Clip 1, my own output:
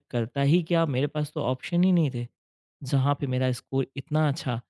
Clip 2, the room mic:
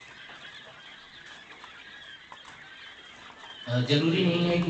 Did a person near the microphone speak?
Yes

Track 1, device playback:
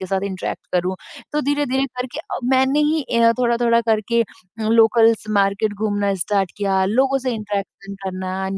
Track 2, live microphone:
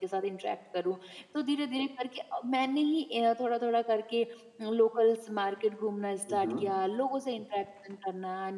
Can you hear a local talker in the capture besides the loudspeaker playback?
Yes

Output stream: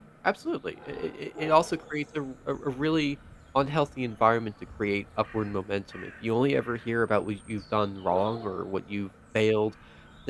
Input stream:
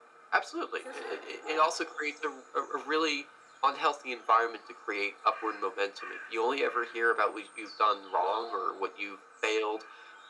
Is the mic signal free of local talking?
No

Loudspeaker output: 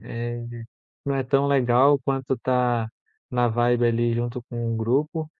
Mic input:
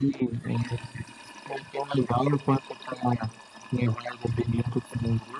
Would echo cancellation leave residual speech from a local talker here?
No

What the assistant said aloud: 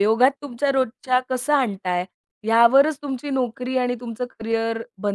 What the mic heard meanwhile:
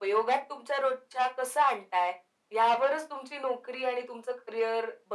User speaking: No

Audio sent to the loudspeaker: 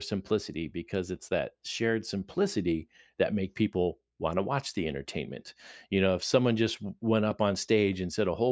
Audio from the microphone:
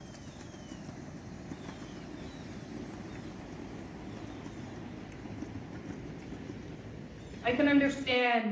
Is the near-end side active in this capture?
Yes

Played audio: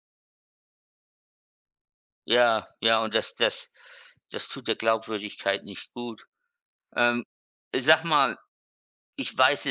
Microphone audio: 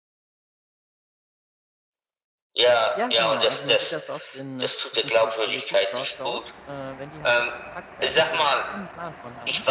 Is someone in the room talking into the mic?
Yes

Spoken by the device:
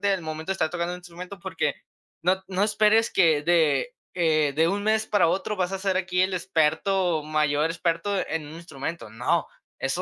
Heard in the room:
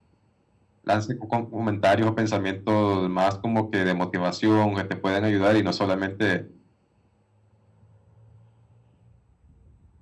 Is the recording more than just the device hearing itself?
Yes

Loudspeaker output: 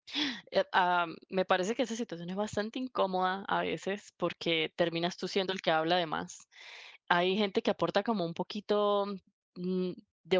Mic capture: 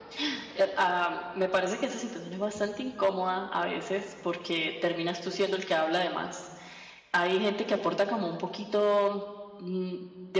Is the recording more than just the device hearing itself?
No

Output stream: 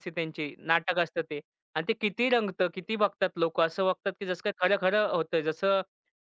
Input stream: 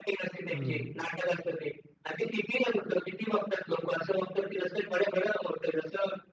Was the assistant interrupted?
Yes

